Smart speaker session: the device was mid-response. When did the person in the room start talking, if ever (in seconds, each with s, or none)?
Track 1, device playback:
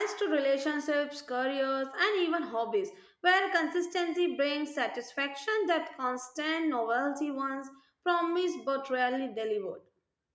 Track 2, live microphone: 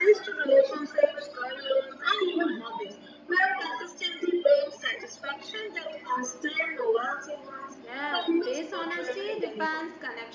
7.8 s